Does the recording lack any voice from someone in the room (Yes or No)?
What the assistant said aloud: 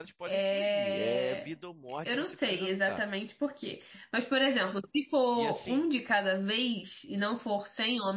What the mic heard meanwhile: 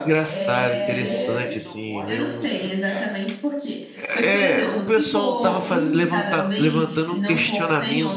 No